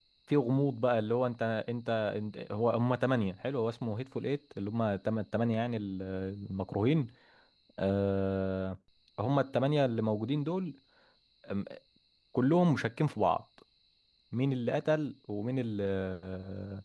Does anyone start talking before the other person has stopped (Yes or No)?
No